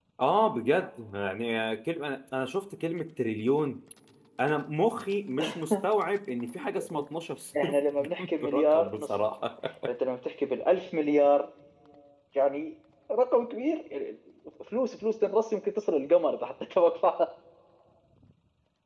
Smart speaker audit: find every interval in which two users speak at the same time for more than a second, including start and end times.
7.6-9.1

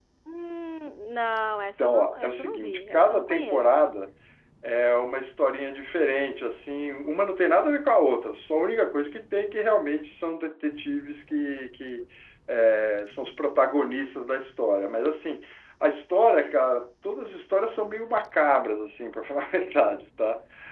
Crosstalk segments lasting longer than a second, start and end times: 1.8-3.6

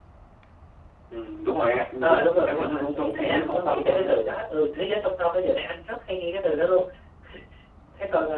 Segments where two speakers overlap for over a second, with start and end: 2.0-4.1

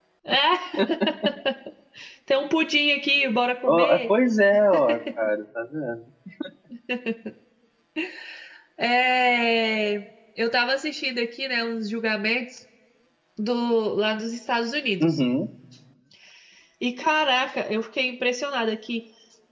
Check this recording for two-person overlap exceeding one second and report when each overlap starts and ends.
none

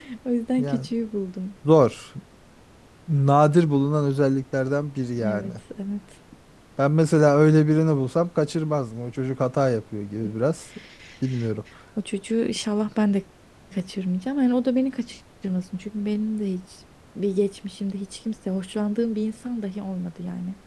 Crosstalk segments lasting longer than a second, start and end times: none

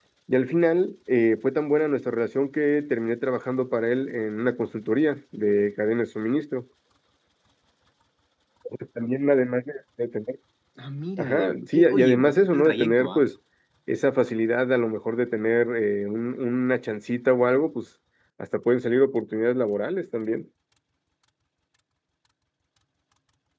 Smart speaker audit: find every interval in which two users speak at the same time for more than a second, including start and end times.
11.2-13.2

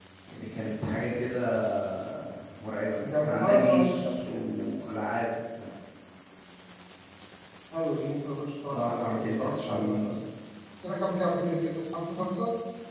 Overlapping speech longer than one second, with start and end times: 3.0-4.4, 8.6-10.1

